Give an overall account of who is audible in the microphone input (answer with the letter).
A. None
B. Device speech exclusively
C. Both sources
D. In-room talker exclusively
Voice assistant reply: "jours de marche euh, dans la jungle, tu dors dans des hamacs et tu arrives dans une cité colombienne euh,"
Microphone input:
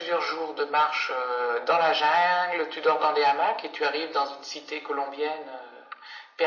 B